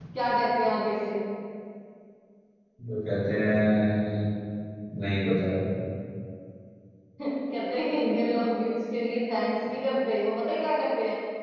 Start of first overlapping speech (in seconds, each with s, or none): none